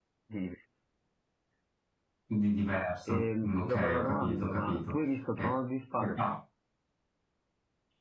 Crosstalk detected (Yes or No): Yes